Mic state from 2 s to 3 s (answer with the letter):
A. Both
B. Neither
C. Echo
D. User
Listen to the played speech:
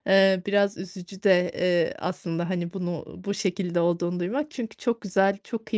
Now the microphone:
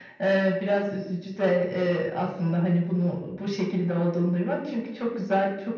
C